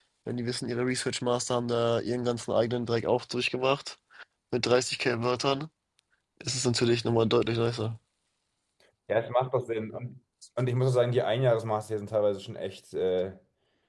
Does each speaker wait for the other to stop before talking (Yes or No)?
Yes